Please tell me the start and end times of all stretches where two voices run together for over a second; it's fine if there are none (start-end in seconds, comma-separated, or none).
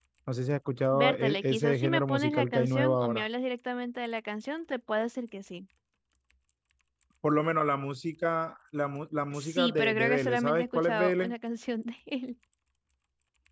1.0-3.3, 9.3-11.3